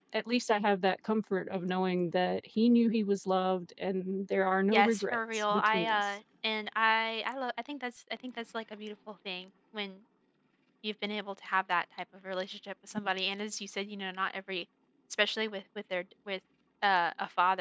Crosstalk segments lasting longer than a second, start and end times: 4.7-6.1

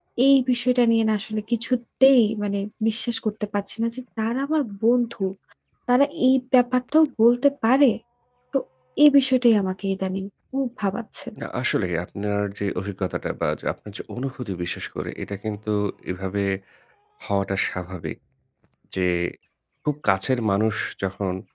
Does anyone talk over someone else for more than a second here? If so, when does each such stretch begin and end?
none

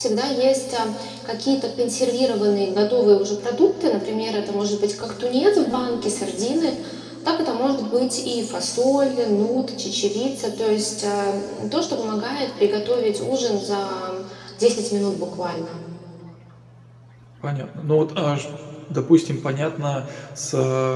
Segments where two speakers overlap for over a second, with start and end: none

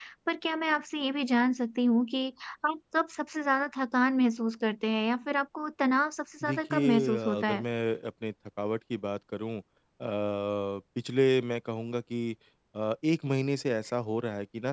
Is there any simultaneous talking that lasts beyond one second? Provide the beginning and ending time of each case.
6.4-7.6

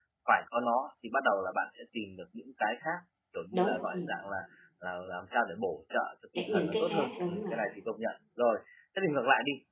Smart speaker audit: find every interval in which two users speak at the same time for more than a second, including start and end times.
6.3-7.6

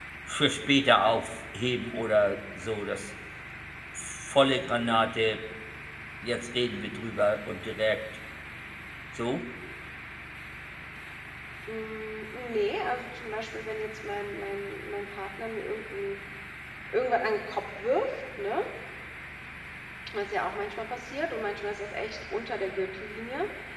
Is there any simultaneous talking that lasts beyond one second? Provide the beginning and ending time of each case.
none

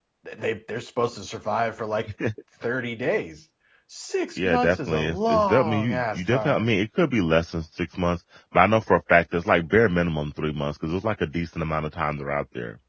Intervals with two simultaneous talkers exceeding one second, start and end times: 4.4-6.7

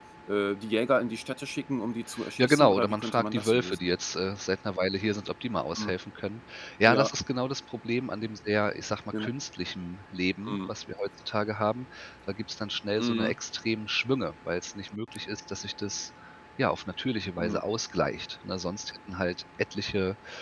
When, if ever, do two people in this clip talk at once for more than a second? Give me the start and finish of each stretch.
2.4-3.9

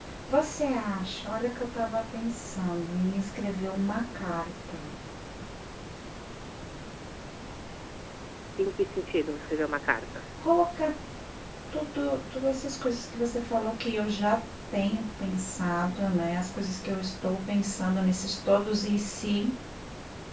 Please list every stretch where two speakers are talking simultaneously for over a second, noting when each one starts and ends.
none

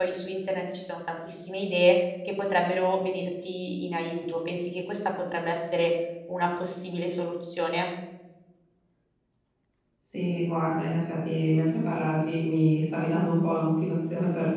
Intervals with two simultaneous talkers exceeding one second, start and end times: none

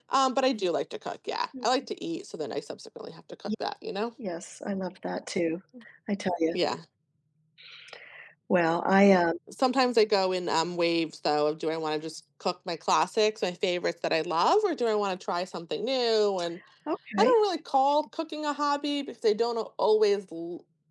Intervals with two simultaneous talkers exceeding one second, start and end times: none

